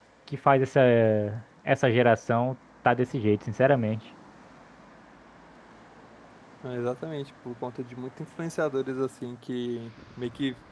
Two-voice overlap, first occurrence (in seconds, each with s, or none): none